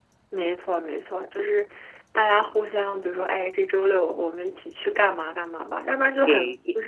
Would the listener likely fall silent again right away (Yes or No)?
No